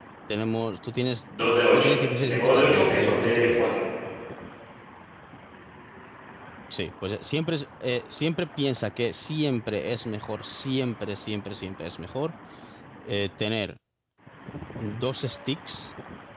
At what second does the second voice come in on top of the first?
1.7 s

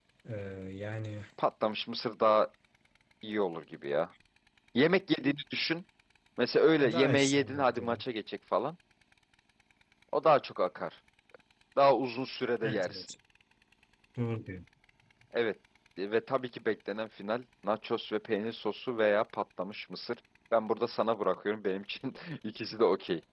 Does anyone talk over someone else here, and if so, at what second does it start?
6.8 s

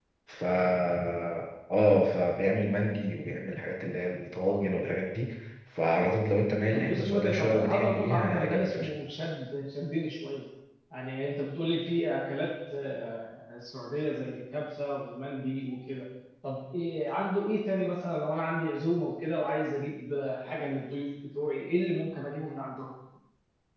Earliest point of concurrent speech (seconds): 6.7 s

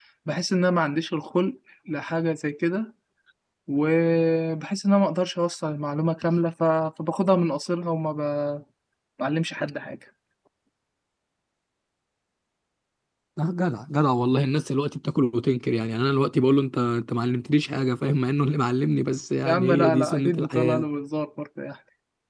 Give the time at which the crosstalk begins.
19.4 s

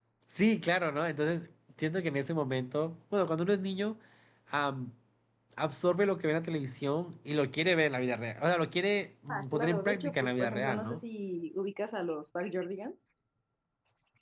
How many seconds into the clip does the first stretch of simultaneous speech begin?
9.3 s

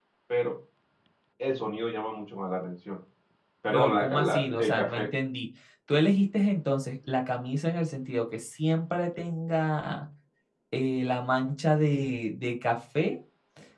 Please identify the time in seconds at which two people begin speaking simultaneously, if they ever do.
3.7 s

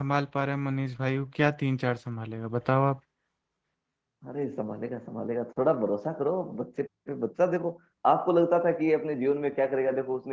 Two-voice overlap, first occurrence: none

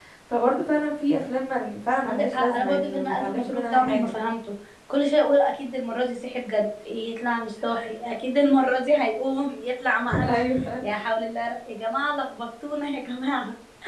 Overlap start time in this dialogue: 2.0 s

